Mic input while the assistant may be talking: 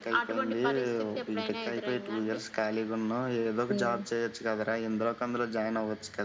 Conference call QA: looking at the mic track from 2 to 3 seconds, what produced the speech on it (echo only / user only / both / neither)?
echo only